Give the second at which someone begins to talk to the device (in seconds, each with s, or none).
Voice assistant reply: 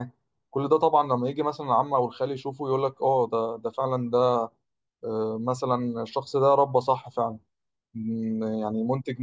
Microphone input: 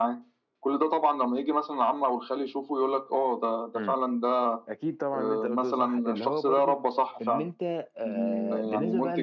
3.7 s